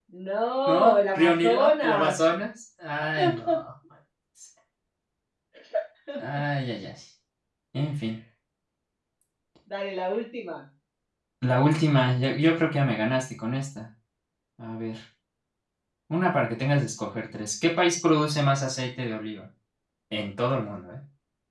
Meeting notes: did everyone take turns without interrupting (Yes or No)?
No